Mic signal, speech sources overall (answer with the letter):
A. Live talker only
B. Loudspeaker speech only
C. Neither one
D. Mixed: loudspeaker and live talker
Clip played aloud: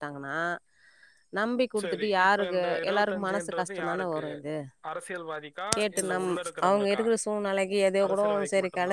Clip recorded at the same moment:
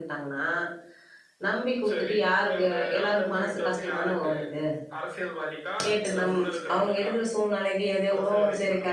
B